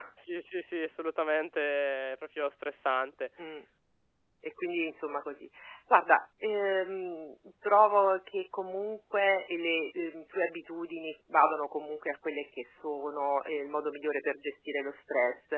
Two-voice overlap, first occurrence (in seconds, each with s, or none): none